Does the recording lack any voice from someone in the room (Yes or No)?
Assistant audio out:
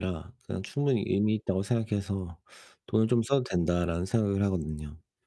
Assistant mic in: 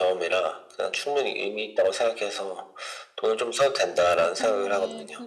No